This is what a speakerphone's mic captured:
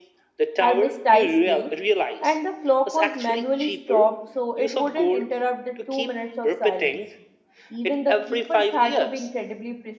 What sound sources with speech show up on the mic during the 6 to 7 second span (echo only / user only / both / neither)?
both